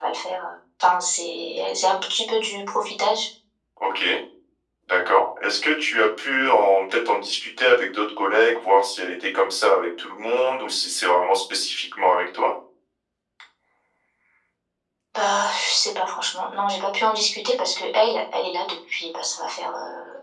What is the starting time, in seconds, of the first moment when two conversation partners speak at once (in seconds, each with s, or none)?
none